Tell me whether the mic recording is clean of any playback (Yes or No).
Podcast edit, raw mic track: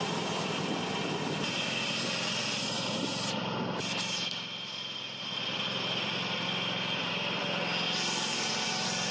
Yes